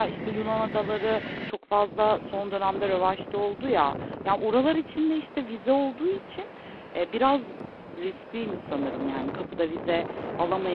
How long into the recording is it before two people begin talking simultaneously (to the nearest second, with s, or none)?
none